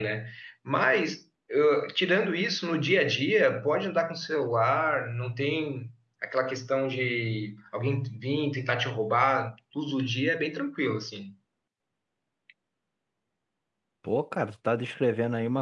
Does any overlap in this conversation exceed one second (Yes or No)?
No